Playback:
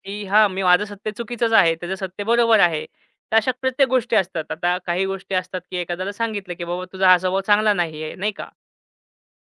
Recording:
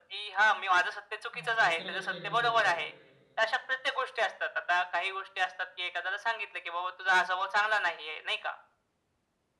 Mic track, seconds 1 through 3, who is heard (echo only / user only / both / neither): both